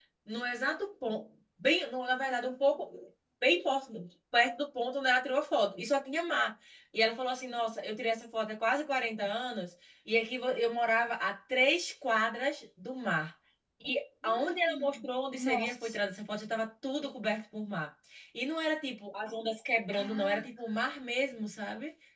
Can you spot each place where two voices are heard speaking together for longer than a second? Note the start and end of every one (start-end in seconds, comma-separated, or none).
14.2-16.0